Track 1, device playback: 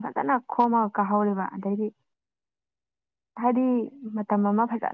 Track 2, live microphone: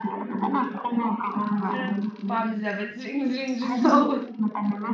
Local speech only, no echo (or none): ꯈꯔ ꯄꯥꯝꯖꯕ ꯖ꯭ꯔꯤꯡ ꯖ꯭ꯔꯤꯡ ꯖ꯭ꯔꯤꯡ ꯇꯧꯕ